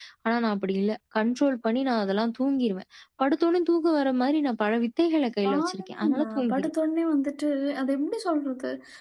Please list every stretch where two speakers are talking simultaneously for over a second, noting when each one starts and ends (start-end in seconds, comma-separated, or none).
5.5-6.7